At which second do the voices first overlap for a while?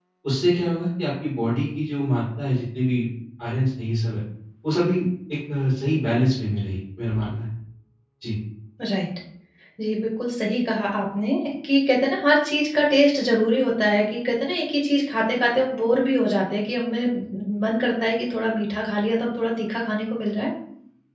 none

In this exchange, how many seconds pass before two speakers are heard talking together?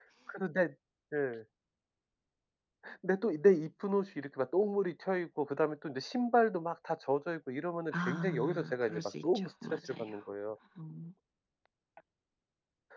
8 s

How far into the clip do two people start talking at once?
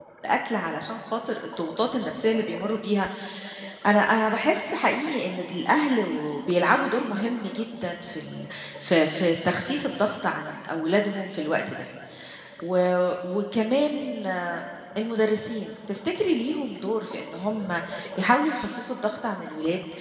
none

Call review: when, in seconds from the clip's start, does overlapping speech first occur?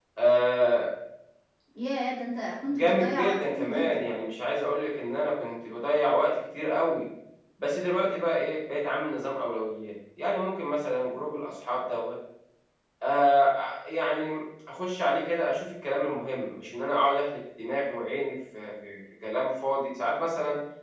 3 s

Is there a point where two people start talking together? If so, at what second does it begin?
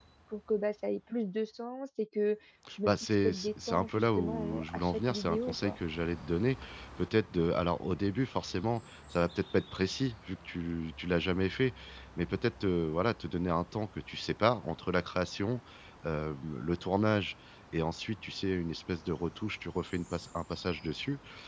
3 s

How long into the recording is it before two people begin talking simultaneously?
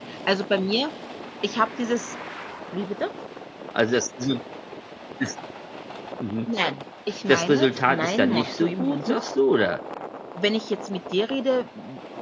7 s

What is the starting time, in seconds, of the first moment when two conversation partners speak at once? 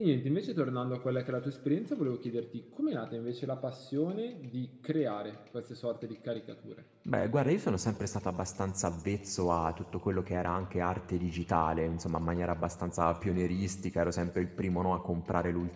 none

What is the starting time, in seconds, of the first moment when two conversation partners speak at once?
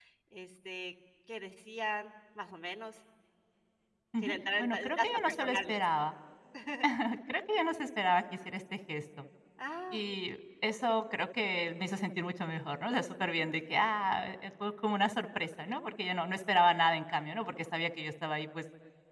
4 s

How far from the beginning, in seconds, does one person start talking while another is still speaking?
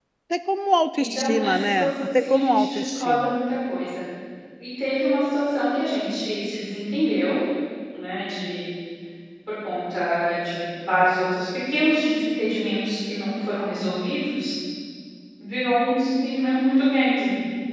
1 s

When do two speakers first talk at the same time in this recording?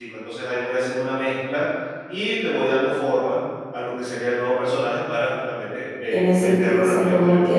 6 s

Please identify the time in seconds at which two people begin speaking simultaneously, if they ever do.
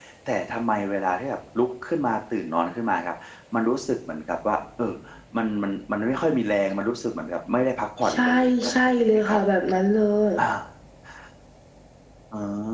8 s

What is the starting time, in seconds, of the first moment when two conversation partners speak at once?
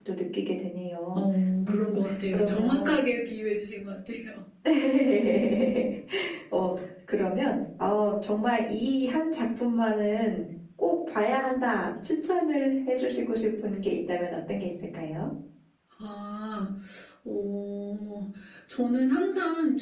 2 s

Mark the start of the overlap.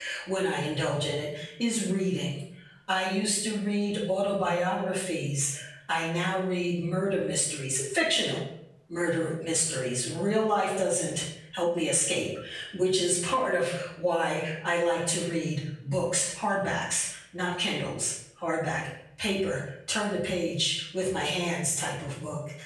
none

